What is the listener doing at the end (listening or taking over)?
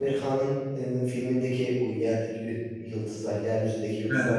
listening